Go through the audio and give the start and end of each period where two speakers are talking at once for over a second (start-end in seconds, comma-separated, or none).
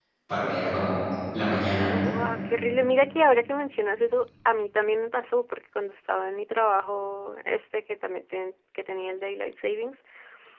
none